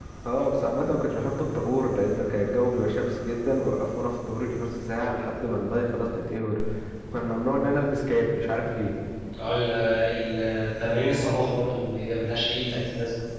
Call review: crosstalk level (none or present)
none